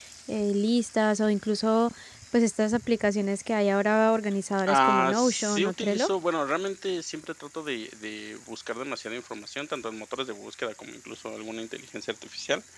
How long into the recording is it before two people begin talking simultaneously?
4.5 s

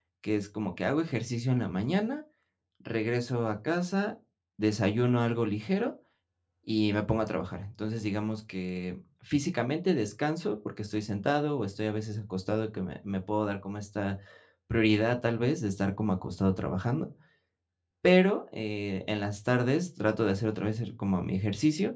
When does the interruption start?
none

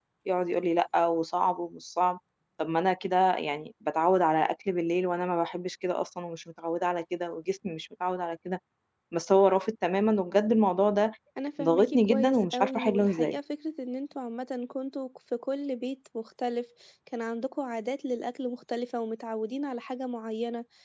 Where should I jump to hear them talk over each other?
11.6 s

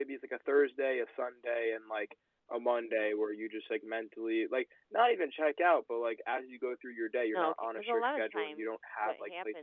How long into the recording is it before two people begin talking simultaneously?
7.3 s

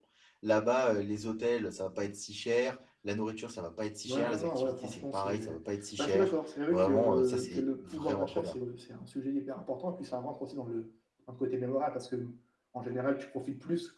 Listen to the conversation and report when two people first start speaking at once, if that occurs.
4.1 s

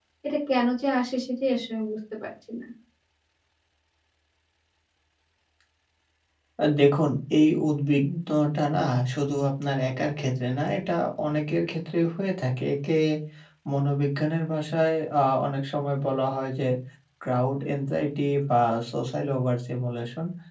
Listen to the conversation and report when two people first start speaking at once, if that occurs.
none

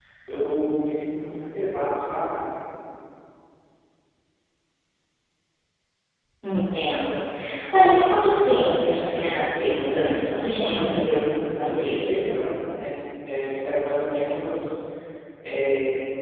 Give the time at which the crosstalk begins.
10.6 s

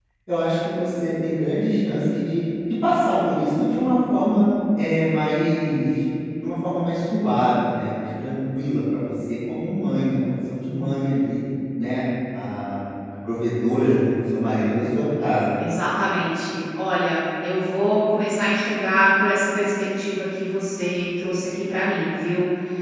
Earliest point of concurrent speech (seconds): none

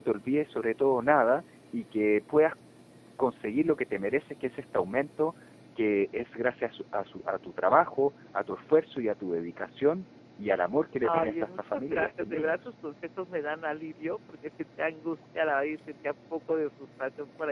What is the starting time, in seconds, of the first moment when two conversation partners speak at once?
11.0 s

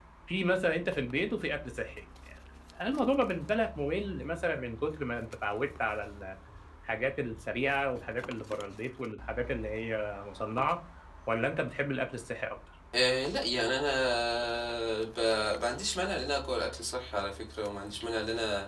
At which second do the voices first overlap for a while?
none

